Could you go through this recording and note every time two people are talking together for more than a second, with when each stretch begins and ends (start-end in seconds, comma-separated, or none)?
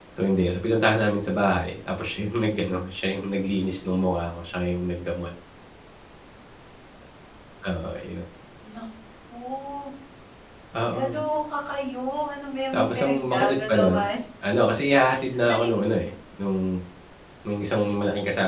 12.7-14.0